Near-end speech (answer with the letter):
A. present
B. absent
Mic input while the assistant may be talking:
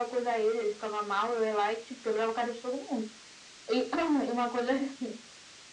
B